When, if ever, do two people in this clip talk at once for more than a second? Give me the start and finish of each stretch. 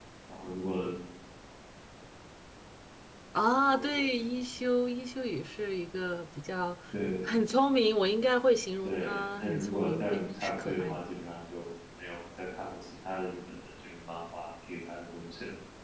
8.8-11.0

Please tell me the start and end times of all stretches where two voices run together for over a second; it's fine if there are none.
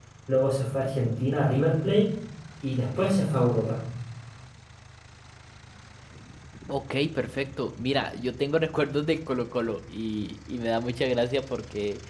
none

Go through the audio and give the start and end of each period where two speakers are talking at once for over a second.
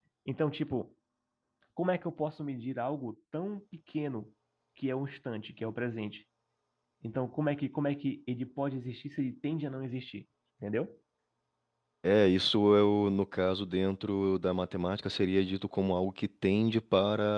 none

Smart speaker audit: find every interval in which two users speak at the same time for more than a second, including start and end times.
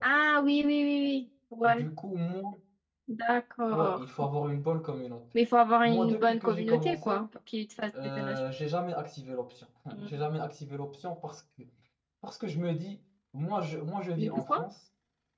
5.8-7.2

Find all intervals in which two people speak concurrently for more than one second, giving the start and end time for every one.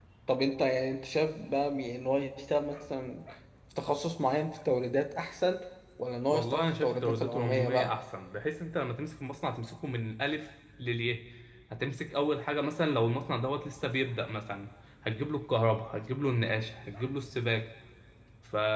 6.3-8.0

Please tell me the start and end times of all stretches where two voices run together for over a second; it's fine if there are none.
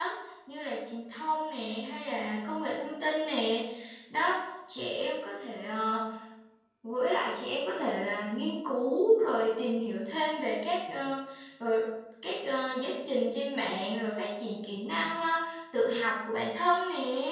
none

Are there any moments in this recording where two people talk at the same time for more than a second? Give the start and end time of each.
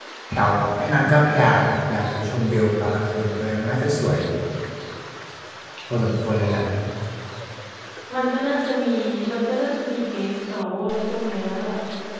none

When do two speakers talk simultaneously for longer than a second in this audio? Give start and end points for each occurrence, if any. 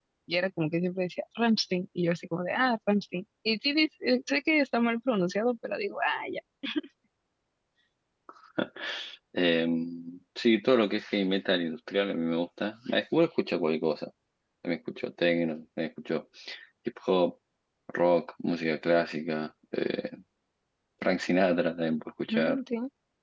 none

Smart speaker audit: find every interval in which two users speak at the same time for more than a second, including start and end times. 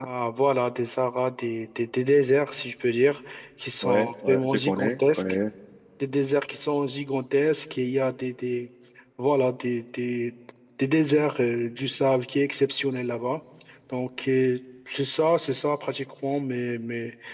3.8-5.2

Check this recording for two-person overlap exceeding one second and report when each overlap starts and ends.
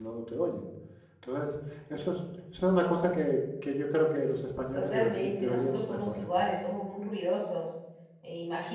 4.8-6.3

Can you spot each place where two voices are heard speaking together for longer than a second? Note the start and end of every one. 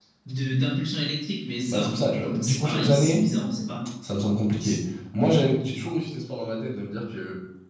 1.7-3.2

